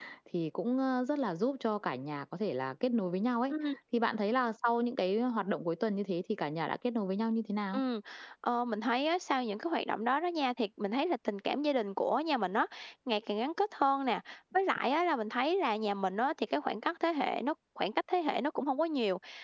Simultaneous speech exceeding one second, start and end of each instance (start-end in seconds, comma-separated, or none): none